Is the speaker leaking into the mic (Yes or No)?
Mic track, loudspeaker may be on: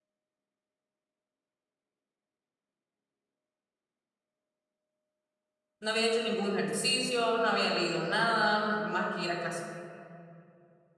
No